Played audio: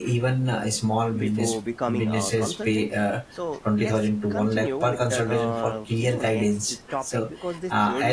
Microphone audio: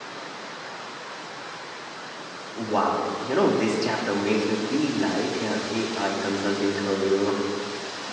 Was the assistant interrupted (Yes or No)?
Yes